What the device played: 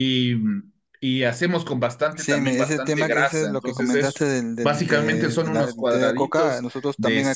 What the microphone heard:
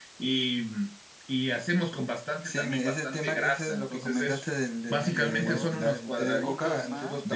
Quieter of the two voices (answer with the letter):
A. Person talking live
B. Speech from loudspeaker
A